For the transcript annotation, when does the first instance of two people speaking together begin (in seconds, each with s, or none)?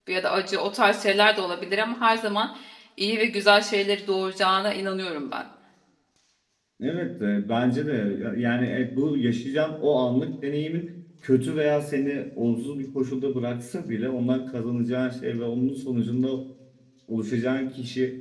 none